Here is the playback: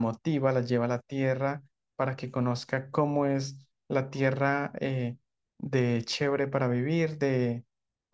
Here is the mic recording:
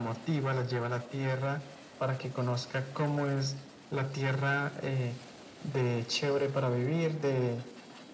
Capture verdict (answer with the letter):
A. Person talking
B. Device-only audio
B